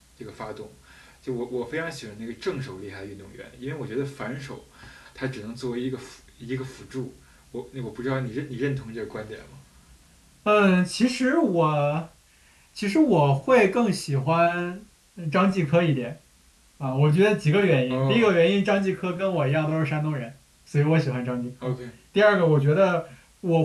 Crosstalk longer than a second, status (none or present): none